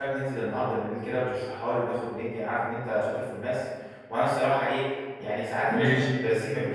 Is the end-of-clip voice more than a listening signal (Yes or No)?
No